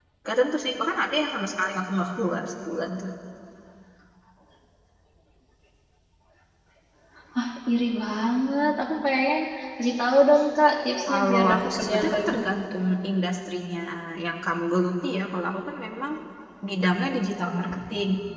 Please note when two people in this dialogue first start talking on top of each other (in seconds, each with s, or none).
11.0 s